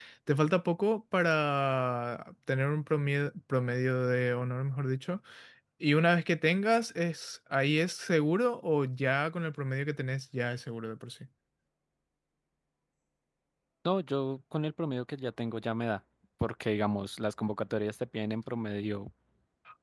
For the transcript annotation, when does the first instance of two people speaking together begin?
none

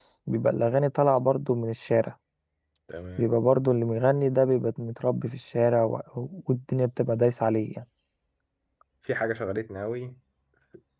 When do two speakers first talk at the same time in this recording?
none

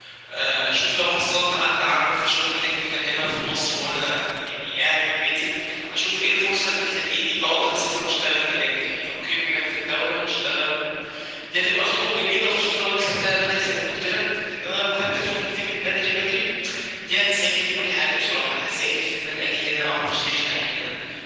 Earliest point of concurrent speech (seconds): none

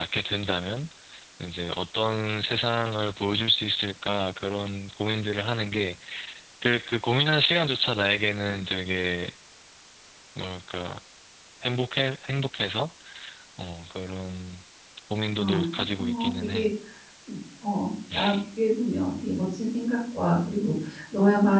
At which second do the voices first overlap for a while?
15.4 s

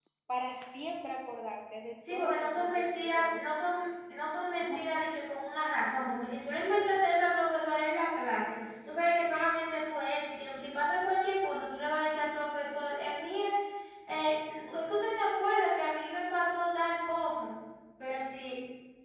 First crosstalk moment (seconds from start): 2.1 s

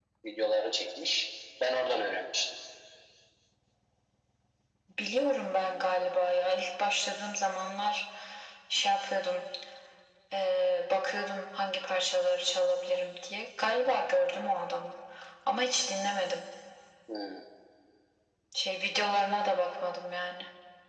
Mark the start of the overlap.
none

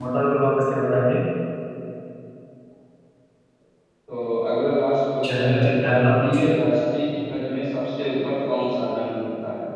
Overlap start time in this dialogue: 5.2 s

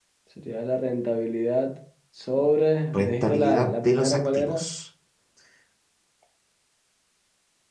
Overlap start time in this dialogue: 2.9 s

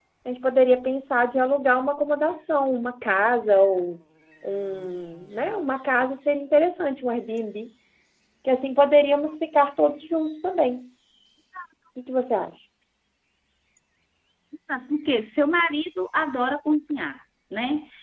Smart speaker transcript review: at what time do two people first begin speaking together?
none

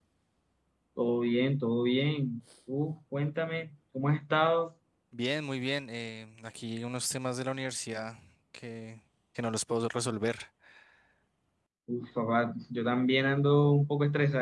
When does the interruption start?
none

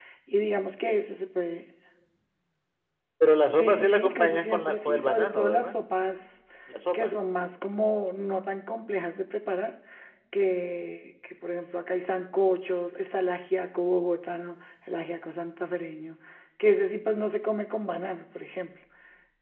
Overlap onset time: 3.6 s

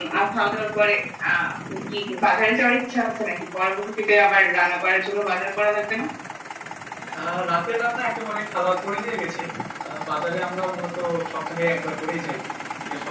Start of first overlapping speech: none

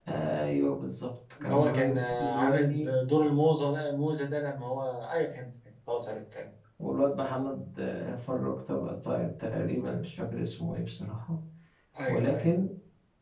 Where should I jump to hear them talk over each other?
1.4 s

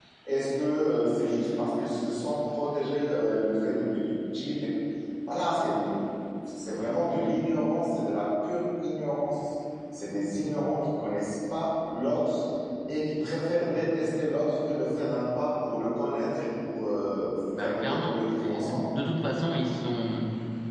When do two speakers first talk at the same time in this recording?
17.5 s

